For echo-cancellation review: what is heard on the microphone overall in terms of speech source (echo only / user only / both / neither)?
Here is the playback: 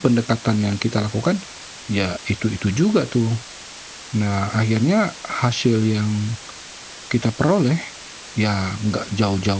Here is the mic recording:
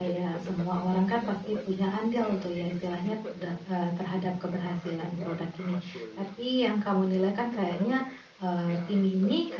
both